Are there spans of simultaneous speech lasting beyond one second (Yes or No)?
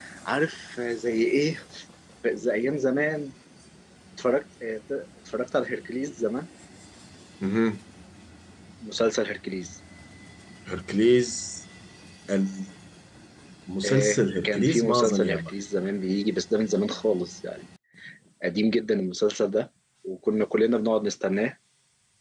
Yes